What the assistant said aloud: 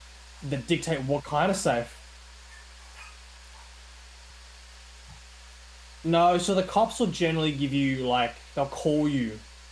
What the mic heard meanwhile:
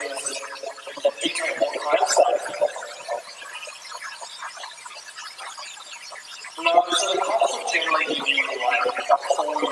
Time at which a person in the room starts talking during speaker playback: none

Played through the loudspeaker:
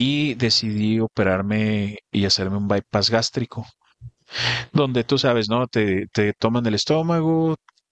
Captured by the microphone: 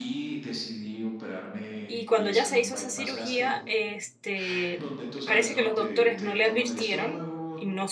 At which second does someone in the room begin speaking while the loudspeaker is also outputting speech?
1.8 s

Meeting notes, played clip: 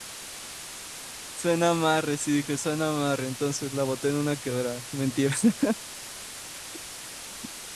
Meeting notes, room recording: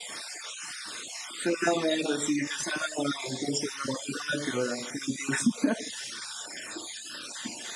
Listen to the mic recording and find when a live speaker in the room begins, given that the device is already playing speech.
none

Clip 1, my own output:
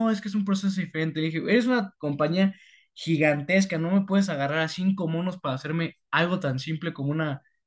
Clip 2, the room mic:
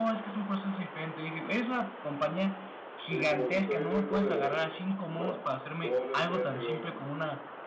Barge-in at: 3.1 s

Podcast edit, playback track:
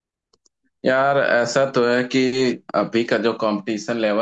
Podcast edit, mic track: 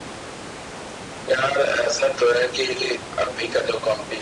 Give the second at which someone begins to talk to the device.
none

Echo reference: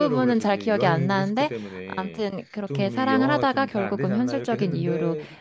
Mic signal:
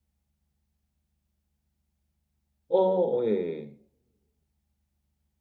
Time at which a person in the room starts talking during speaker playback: 2.7 s

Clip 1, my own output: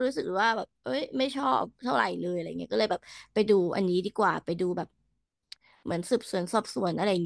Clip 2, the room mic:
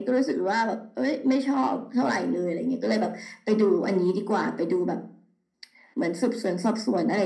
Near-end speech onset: none

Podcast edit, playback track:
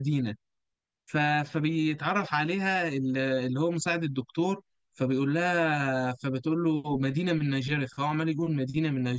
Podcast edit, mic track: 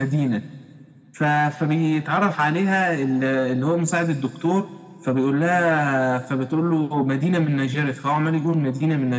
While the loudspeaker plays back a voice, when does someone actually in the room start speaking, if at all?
none

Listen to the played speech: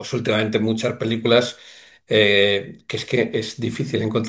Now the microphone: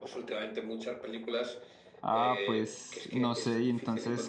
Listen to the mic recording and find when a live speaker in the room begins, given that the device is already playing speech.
2.0 s

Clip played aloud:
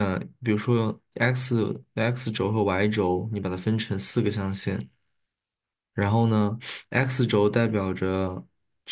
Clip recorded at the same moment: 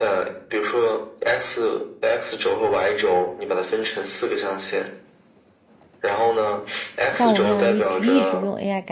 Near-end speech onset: 7.1 s

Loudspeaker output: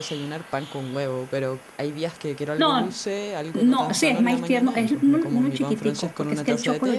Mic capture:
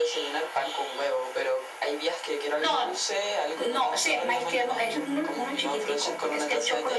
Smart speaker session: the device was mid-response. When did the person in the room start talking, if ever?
none

